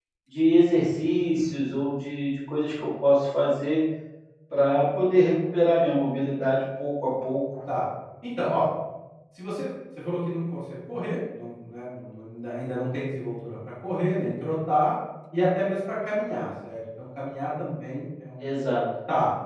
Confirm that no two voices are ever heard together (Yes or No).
Yes